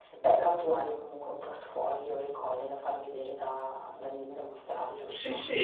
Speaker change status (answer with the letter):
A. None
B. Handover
B